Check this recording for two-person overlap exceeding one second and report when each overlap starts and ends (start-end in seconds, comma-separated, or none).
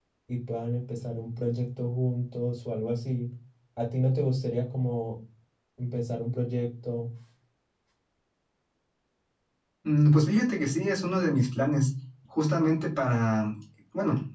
none